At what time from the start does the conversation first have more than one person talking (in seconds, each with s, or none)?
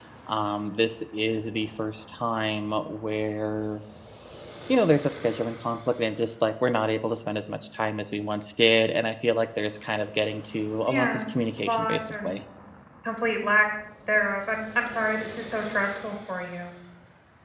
10.9 s